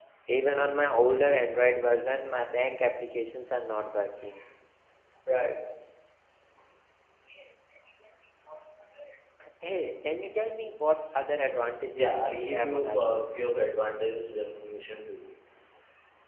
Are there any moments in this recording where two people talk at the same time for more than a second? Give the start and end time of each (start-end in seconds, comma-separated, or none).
12.0-13.2